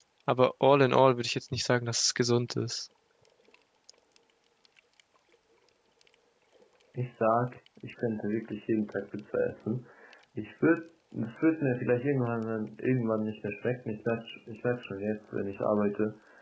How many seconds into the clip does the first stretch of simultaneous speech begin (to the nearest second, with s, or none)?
none